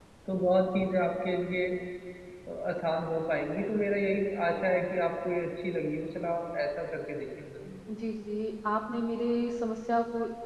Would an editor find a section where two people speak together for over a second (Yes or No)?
No